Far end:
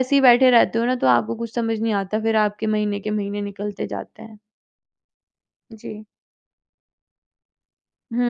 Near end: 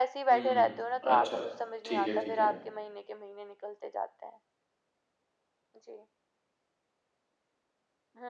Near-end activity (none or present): present